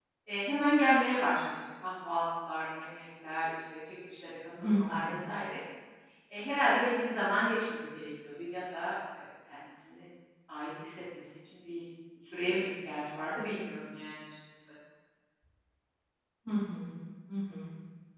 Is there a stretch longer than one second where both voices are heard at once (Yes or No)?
No